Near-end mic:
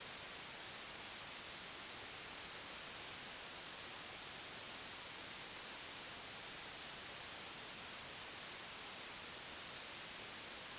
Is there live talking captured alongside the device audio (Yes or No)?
No